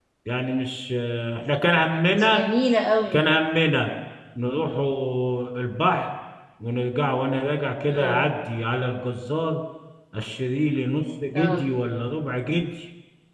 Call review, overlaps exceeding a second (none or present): none